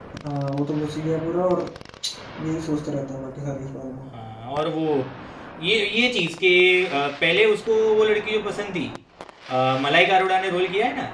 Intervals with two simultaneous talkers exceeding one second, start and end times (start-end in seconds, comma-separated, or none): none